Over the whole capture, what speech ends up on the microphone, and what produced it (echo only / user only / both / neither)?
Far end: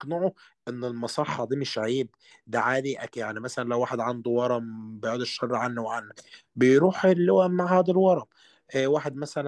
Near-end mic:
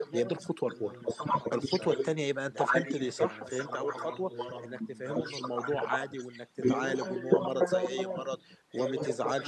both